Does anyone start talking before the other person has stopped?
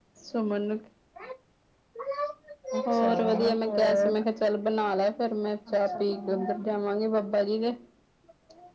Yes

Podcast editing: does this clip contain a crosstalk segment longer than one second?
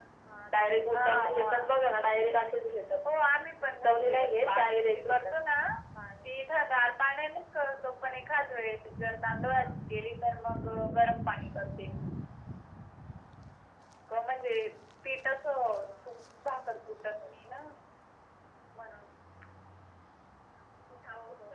Yes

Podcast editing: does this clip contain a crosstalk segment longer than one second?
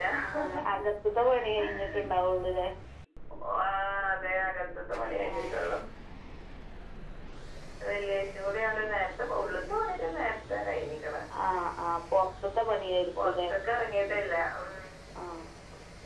No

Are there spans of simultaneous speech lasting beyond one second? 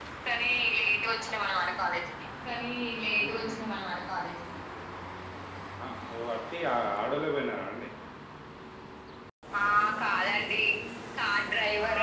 No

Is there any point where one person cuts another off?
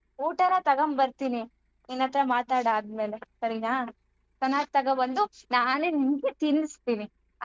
No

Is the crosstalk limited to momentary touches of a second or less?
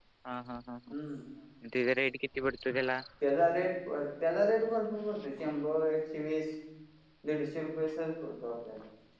Yes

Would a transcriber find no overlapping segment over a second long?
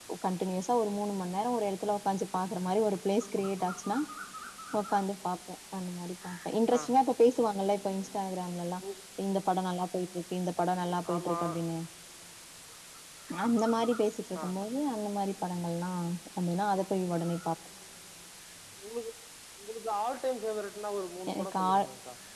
Yes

